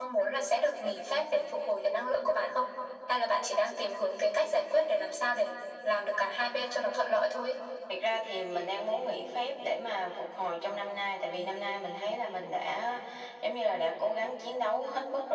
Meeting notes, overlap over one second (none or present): none